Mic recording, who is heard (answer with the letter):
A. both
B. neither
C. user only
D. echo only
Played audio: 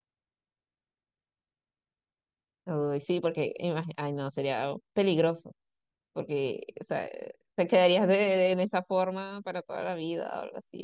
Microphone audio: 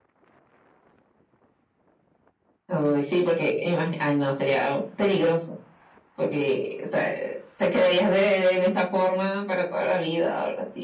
D